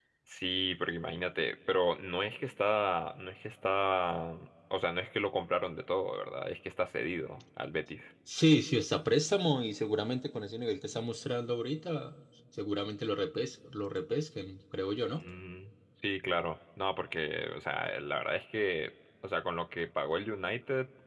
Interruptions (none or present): none